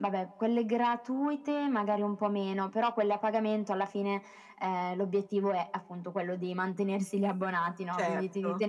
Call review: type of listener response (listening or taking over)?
listening